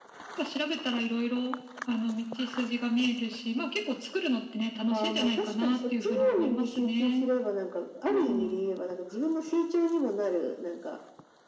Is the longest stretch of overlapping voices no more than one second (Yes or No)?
No